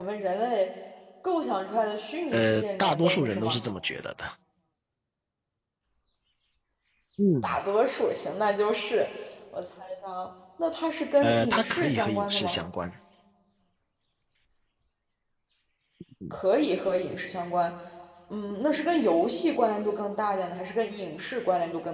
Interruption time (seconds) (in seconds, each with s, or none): 2.3 s